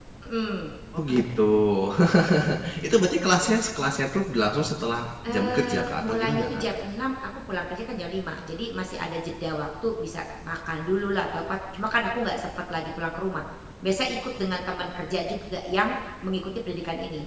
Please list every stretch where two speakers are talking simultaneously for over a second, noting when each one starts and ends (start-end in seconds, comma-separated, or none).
5.2-6.6